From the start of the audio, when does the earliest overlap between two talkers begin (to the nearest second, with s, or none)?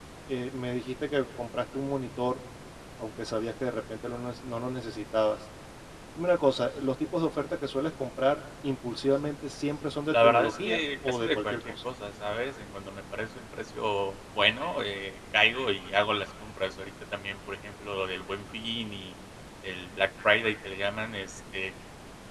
10 s